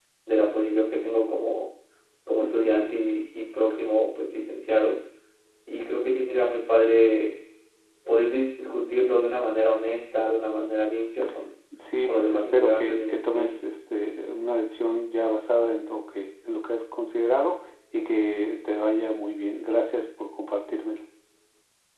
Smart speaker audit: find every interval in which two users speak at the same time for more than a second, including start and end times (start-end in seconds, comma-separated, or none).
12.0-13.6